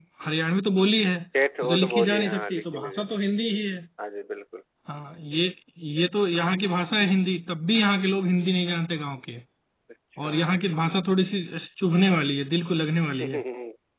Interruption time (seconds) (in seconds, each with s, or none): 1.6 s